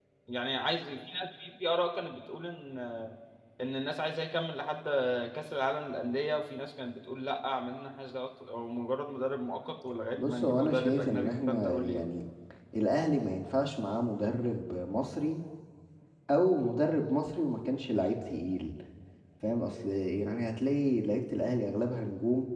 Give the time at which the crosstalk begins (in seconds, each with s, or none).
10.2 s